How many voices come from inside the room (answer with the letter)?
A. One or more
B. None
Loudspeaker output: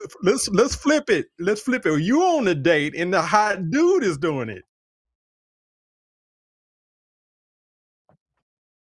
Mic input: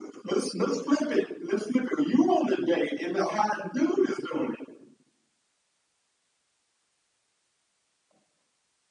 B